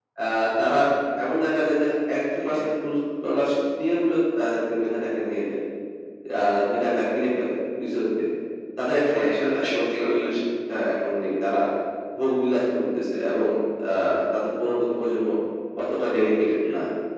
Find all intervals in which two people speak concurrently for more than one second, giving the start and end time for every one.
9.1-10.4

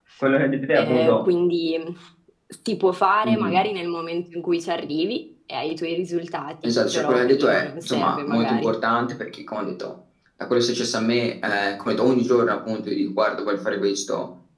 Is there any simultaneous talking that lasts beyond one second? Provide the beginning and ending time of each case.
6.6-8.7

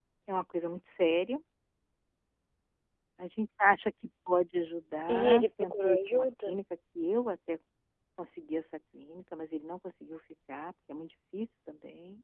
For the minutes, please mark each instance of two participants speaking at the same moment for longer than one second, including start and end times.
5.1-6.5

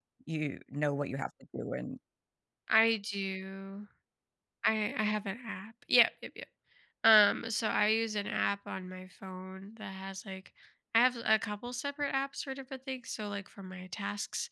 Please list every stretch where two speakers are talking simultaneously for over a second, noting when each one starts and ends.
none

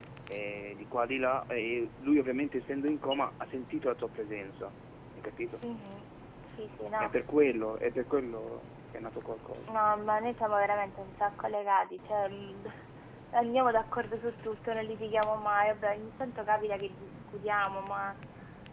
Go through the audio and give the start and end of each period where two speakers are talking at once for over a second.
none

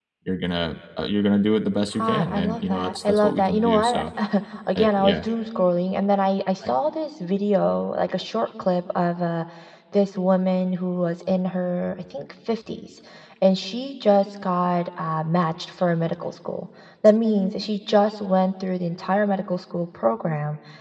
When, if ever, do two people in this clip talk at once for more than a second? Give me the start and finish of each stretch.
1.9-4.1

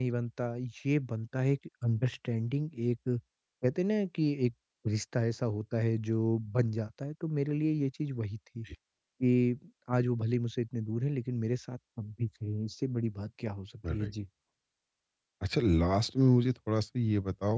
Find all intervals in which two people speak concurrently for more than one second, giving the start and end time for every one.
none

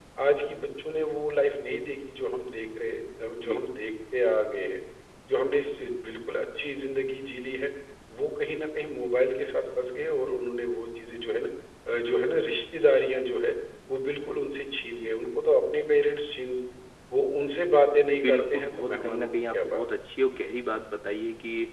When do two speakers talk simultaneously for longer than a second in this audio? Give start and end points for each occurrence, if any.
18.2-19.8

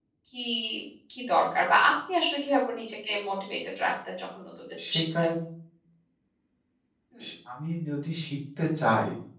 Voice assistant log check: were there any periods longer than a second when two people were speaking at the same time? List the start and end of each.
none

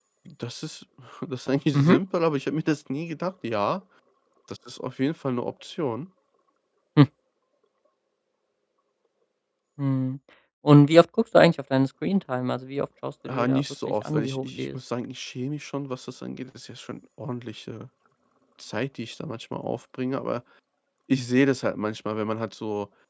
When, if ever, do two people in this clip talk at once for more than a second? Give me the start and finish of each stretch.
13.2-14.8

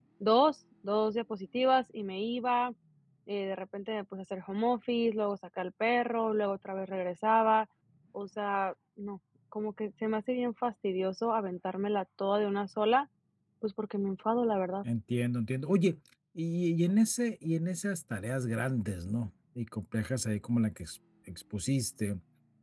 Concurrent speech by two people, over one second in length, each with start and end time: none

